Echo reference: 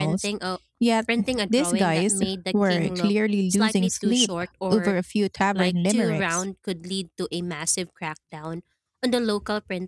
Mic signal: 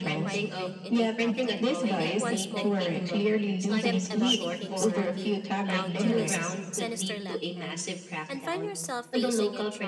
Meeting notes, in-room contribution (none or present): present